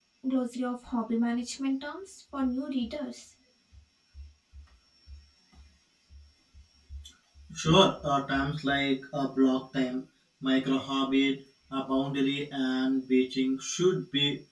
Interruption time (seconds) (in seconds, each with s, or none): none